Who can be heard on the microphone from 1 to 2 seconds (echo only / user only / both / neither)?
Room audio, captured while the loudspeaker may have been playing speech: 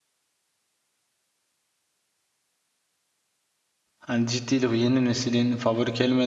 neither